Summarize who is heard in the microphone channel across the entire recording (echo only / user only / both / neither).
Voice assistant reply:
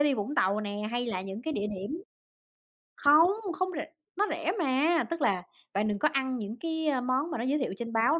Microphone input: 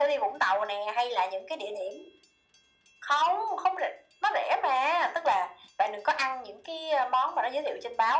echo only